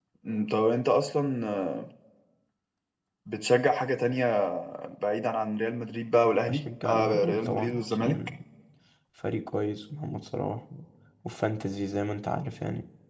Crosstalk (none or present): present